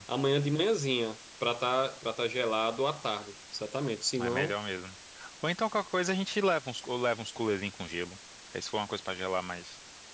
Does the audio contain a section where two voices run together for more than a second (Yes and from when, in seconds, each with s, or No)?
No